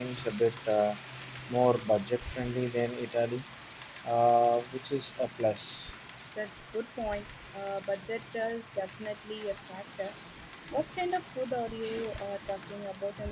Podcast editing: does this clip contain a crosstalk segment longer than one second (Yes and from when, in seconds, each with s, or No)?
No